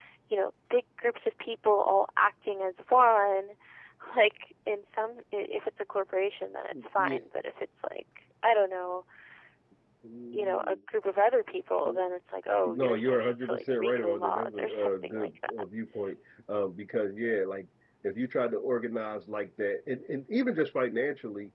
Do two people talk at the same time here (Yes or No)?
Yes